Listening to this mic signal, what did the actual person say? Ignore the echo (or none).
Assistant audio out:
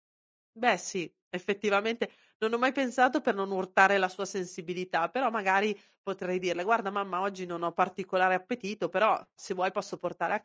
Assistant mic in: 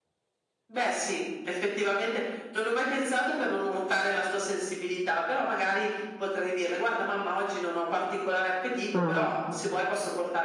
Mh-mh.